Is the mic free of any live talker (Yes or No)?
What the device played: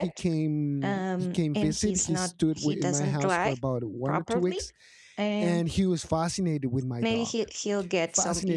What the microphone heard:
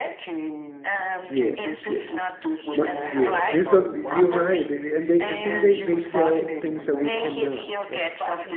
No